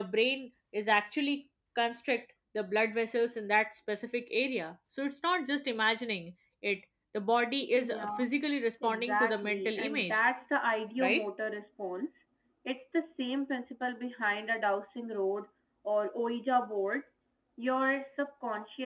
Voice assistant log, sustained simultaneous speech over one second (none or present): present